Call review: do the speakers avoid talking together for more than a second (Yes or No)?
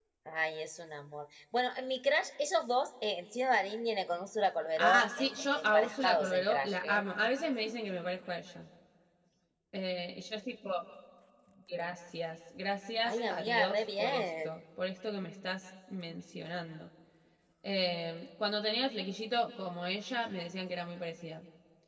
No